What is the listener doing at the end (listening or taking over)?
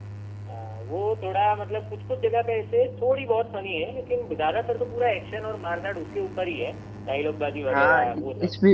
taking over